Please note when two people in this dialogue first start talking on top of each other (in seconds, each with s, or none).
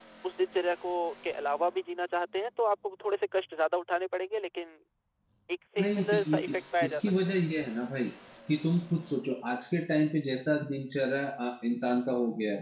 5.8 s